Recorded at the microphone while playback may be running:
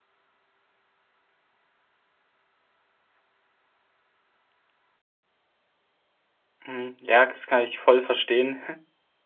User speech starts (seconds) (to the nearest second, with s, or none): 7 s